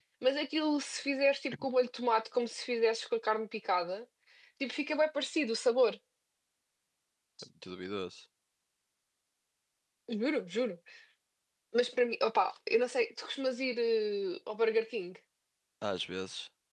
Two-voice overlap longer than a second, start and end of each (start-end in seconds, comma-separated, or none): none